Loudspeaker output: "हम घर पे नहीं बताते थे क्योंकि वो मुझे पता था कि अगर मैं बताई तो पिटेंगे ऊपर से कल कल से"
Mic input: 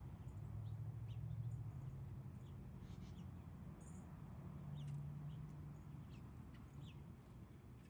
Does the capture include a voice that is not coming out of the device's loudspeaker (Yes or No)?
No